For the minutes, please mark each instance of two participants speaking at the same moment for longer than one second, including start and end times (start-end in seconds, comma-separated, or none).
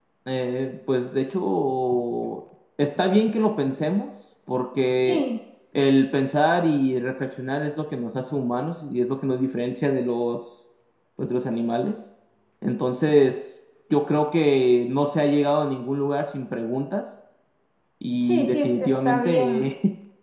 18.2-19.7